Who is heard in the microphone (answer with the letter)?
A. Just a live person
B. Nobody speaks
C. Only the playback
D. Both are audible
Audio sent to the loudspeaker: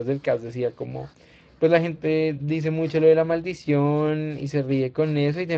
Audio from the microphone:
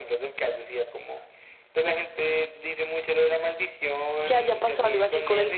D